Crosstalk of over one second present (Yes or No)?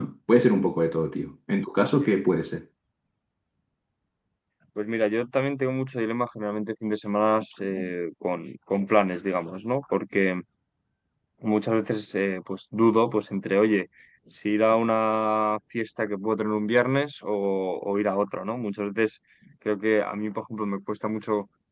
No